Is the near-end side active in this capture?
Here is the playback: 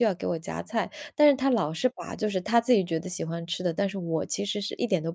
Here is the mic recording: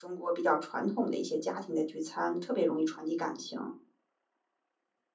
Yes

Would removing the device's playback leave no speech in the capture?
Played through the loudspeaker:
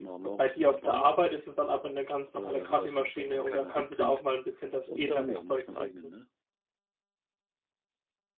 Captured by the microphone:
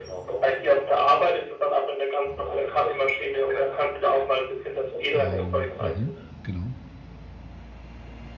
No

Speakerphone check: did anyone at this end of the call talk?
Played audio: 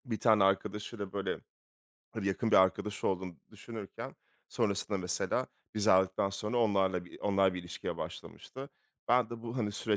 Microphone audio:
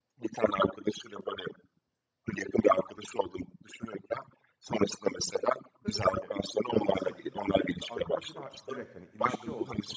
Yes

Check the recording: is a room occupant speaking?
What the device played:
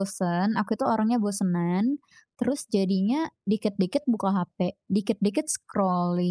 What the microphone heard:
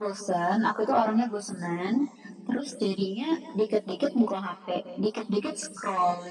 No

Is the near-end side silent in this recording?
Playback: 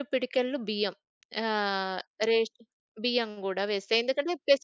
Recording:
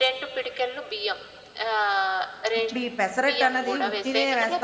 No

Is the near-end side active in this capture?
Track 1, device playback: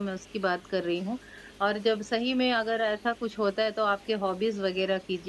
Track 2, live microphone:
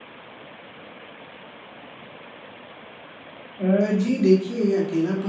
Yes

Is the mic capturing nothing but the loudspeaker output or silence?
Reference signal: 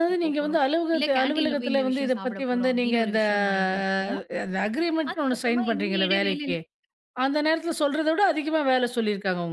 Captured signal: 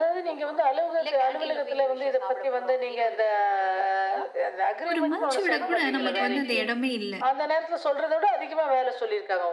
No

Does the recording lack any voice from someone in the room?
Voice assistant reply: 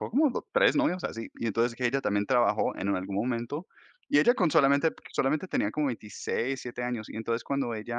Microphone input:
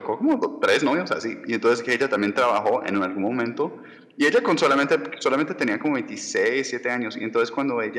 Yes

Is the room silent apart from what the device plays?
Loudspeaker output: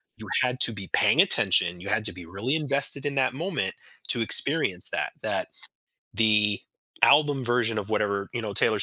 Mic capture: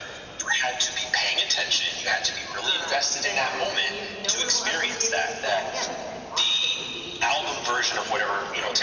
No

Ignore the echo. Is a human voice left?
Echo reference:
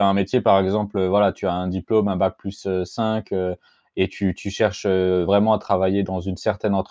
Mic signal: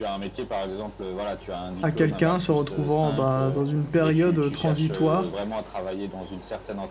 Yes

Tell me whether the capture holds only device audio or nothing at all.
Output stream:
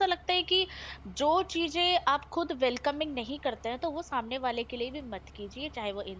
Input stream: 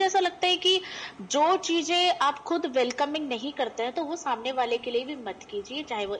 Yes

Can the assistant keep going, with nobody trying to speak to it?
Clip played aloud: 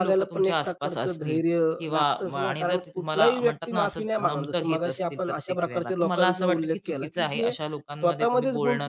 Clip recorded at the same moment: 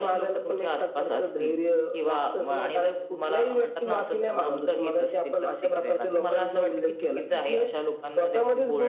Yes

